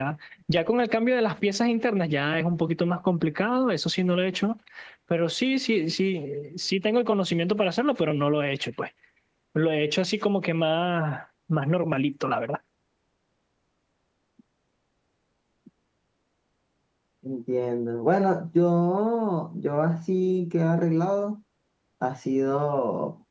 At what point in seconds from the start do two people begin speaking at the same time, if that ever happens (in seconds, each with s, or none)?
none